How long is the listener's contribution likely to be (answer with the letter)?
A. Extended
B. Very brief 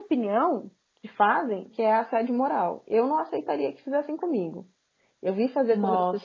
B